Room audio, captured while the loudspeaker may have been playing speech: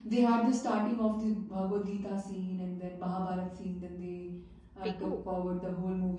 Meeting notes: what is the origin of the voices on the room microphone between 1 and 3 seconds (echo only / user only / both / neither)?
echo only